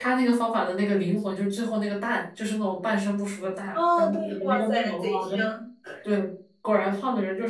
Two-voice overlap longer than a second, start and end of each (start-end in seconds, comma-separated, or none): 3.7-5.4